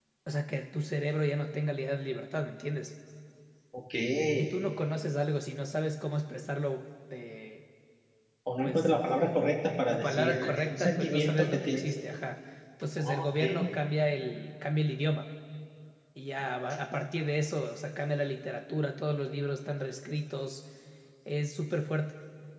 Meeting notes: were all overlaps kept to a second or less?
No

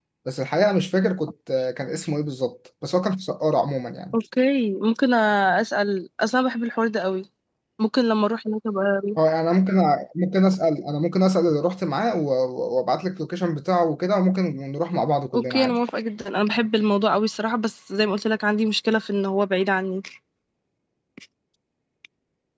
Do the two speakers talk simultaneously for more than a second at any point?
No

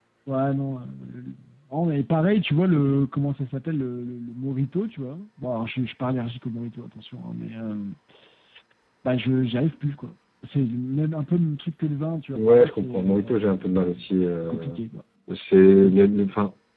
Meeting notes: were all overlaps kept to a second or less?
No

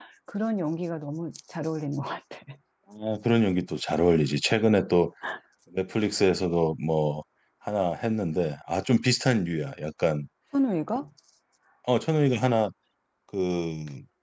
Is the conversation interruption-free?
Yes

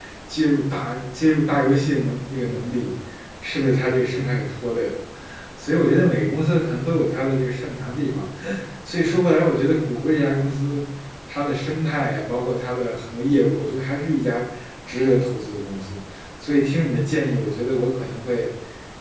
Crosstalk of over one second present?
No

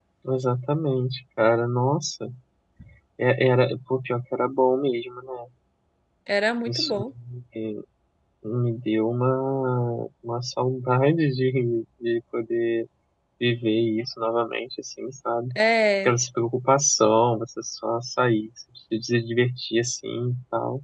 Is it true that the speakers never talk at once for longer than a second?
Yes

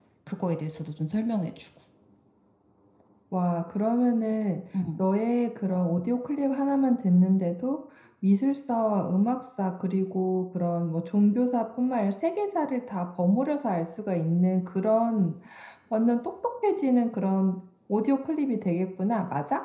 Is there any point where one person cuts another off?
No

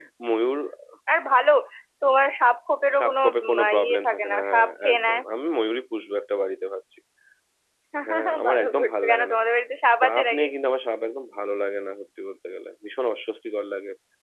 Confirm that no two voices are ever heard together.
No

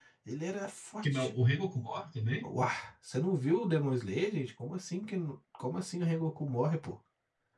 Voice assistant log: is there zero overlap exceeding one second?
Yes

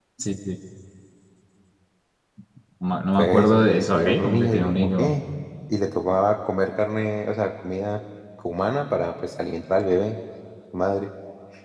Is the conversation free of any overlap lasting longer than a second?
No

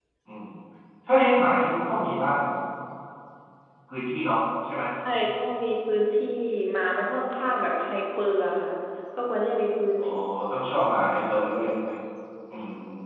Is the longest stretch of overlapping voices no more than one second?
Yes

